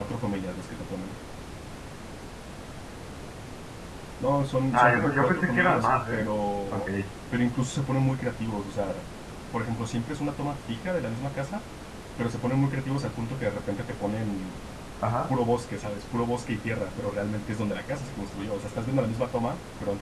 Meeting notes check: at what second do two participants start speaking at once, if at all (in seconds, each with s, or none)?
4.7 s